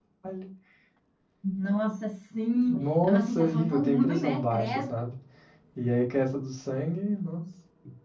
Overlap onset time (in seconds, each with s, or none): 2.6 s